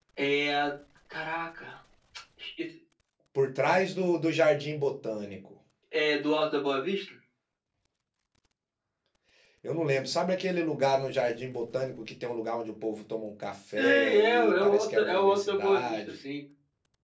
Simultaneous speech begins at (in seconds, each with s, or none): 13.8 s